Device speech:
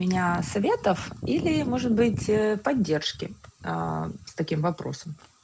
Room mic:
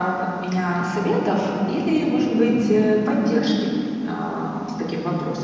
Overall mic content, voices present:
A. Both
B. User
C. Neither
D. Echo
D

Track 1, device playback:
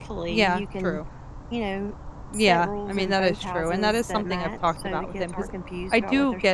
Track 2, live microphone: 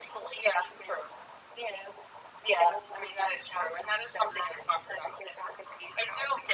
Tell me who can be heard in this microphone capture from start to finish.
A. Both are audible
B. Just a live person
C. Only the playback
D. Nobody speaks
C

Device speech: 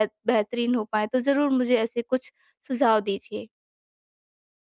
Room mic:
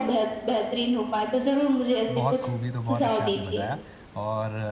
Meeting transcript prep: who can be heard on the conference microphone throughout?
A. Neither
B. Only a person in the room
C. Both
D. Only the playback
C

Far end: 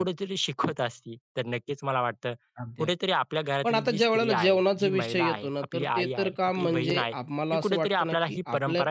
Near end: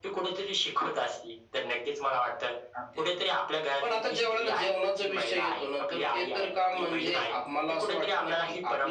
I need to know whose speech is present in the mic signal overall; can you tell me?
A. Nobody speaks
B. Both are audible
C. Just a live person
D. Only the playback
D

